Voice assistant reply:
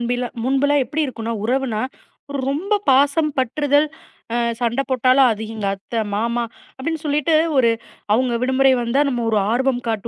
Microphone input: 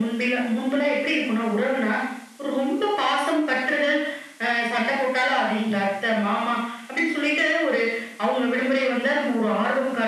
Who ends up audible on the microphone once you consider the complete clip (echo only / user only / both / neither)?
echo only